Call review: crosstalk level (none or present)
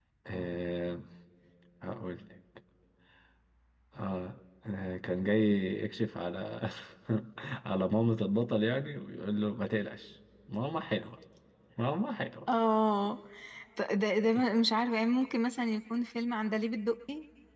none